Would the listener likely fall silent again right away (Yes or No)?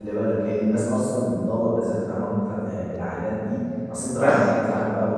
Yes